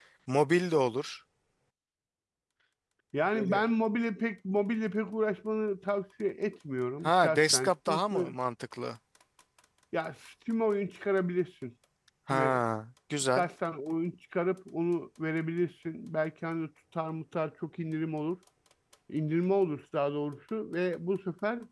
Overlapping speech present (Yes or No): Yes